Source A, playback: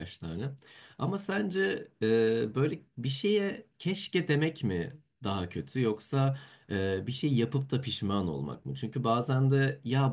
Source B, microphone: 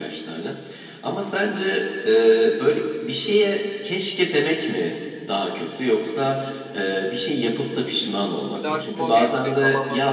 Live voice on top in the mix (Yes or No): No